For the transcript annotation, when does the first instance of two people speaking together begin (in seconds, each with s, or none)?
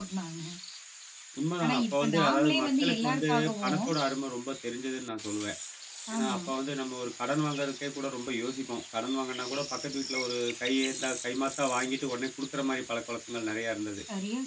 1.6 s